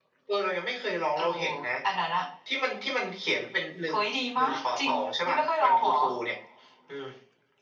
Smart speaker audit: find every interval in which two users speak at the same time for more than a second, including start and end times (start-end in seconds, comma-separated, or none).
4.4-5.9